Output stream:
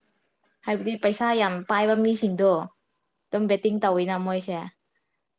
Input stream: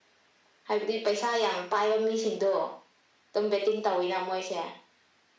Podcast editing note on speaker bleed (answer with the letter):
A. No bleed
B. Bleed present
B